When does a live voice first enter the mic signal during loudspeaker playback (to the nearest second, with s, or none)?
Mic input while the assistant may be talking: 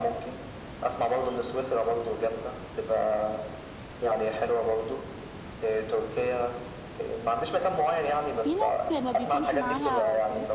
8 s